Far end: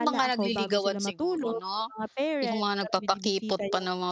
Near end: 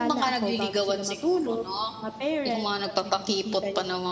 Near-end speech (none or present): none